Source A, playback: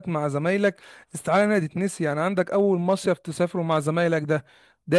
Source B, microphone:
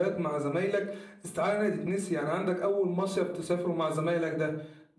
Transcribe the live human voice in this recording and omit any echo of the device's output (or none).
none